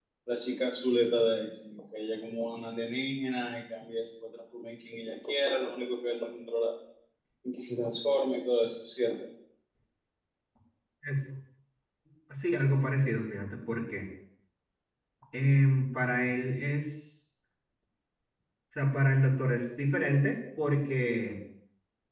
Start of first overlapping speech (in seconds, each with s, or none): none